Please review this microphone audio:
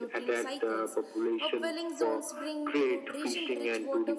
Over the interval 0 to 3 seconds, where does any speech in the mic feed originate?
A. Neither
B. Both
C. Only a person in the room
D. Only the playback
B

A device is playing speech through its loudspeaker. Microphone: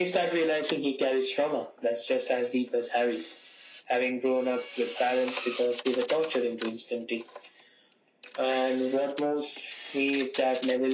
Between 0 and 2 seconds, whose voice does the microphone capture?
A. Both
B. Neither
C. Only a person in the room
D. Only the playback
D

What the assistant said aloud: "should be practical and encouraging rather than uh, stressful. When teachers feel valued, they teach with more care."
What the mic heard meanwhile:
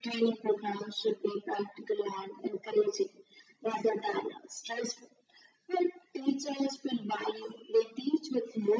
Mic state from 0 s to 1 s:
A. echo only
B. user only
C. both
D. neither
A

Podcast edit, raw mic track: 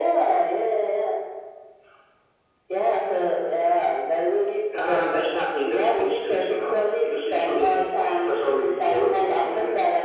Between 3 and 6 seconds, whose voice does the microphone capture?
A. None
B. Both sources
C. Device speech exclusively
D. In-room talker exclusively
C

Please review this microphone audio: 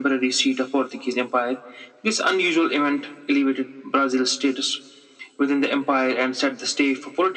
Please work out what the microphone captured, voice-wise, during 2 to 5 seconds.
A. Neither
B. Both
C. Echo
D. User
C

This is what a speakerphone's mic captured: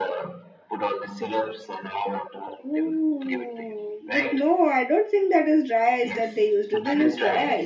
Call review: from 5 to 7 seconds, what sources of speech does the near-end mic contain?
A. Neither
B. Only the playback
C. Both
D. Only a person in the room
C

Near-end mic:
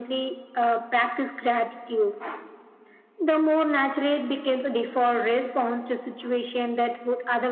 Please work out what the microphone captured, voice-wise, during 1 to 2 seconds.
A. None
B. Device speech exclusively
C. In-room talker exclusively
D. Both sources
B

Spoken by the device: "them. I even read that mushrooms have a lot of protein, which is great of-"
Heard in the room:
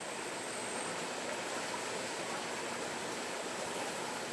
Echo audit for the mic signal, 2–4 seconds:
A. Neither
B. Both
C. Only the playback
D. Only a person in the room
A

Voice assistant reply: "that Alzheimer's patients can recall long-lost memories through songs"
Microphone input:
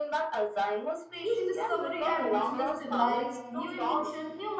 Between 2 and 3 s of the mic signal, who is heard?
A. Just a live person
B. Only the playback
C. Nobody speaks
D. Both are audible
D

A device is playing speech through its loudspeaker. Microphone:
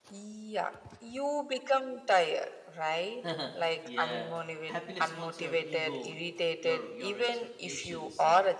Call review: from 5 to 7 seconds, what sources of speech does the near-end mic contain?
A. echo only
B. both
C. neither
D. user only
B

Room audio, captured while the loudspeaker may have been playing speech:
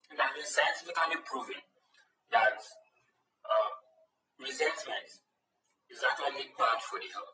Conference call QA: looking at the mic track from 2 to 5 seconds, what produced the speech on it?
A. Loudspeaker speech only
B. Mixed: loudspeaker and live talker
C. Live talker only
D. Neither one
A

